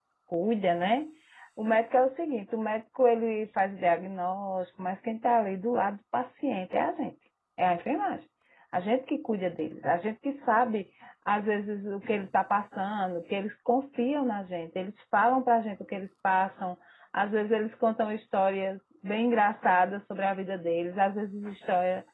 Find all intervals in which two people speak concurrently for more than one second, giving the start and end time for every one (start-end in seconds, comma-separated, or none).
none